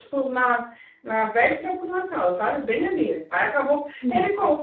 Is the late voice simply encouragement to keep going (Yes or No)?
Yes